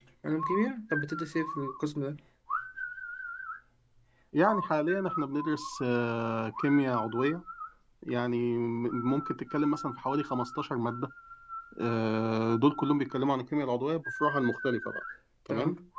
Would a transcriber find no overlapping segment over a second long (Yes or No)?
Yes